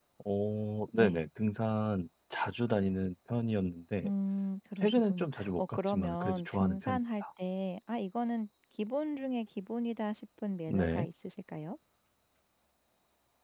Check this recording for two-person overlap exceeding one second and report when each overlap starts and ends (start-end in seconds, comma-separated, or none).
4.8-7.2